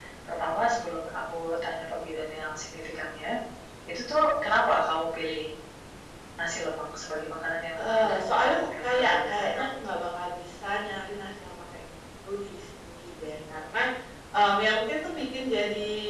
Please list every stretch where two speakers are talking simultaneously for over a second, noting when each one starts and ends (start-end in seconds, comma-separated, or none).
7.8-9.8